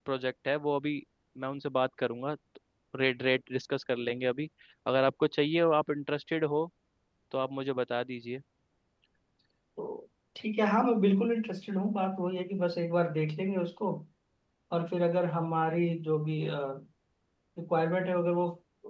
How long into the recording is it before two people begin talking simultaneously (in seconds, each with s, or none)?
none